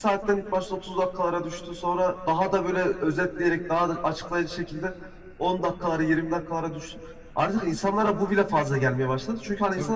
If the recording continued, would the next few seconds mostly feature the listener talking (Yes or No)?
No